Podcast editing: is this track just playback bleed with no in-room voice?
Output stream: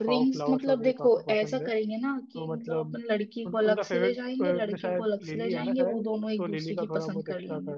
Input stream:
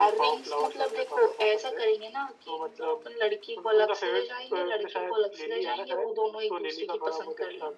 Yes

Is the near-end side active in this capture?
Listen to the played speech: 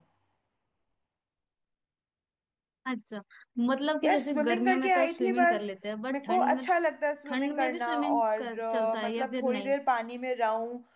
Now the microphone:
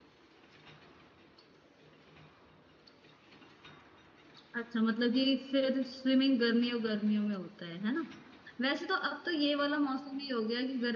Yes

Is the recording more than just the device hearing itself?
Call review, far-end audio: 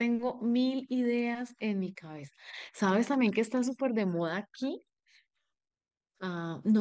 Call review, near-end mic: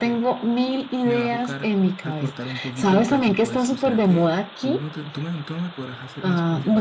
Yes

